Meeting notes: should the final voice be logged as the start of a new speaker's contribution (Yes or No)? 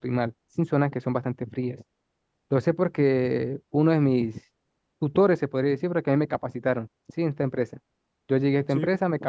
No